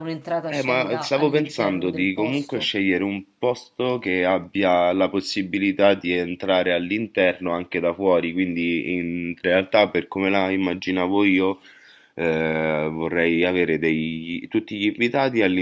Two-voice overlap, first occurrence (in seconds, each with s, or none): 0.5 s